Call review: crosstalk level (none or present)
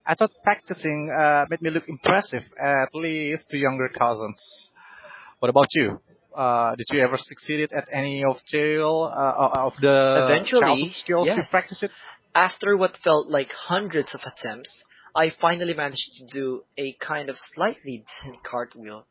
present